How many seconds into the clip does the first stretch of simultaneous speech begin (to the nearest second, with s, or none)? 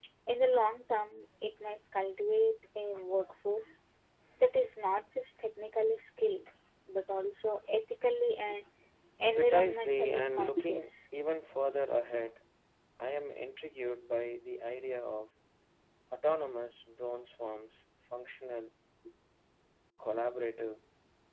9 s